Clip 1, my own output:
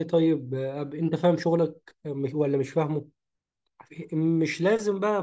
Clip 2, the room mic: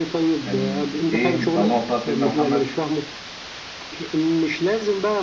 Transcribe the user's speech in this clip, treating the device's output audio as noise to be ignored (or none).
كانت ايه اللهم صل على سيدنا محمد